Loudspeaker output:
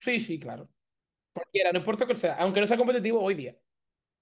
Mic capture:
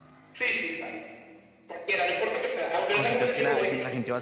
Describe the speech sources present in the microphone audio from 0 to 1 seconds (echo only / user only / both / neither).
echo only